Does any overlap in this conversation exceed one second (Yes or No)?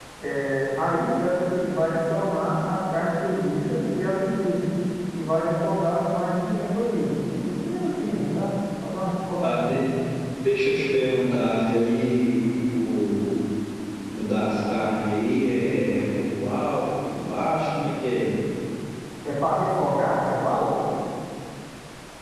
No